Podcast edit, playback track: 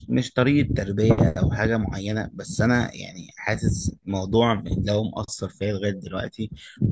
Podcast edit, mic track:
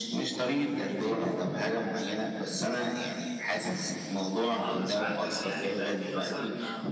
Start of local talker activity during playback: 4.5 s

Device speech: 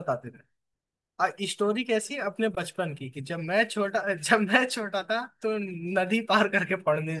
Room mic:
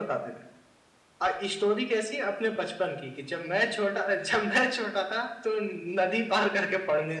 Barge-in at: none

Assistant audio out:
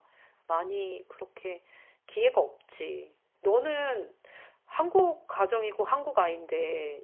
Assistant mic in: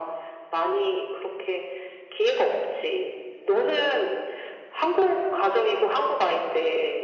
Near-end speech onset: none

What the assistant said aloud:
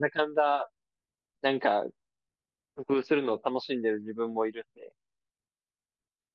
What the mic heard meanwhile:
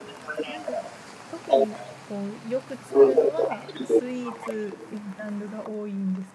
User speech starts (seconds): 0.4 s

